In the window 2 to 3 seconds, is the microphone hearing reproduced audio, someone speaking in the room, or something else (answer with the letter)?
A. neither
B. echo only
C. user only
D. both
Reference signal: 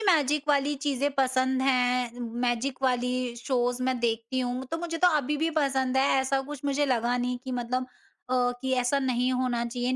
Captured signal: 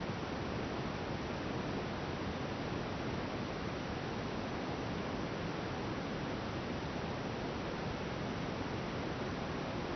A